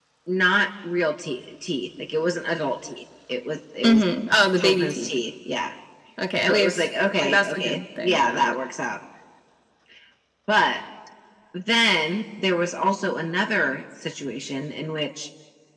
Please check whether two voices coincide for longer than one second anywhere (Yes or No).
Yes